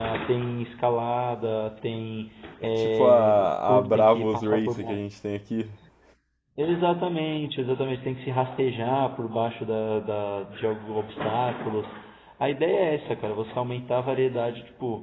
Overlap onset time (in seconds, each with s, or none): 2.6 s